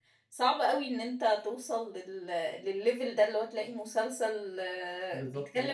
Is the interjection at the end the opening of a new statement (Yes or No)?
No